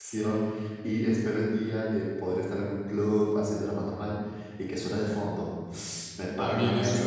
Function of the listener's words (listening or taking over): taking over